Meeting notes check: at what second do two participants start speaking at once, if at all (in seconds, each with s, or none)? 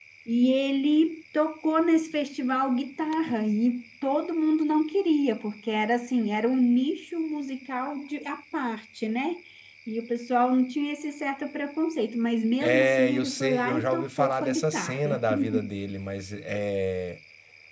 12.6 s